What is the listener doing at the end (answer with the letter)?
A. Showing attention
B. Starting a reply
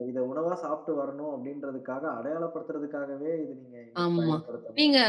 B